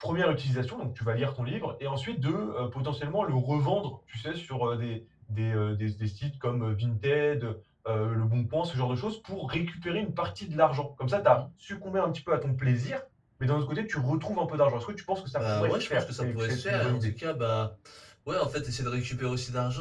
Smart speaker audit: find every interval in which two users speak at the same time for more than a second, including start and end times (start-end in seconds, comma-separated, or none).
15.4-17.1